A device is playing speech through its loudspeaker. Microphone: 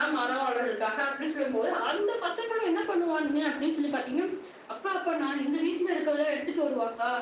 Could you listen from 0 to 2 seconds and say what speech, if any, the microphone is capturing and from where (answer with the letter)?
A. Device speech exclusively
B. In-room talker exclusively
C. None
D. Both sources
A